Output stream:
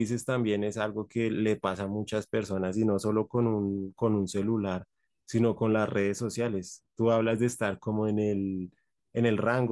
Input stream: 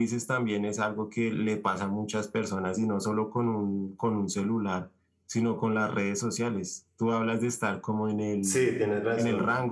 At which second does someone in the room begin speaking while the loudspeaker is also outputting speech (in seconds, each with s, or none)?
8.4 s